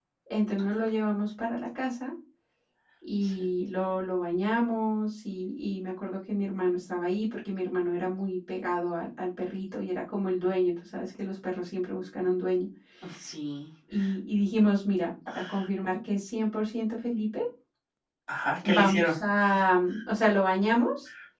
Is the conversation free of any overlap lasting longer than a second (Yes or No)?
Yes